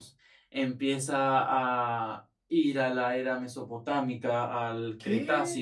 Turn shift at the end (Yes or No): No